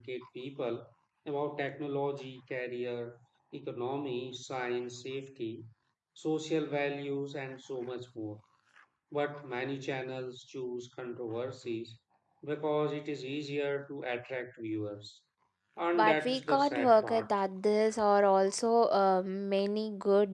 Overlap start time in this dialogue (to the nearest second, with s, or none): 16 s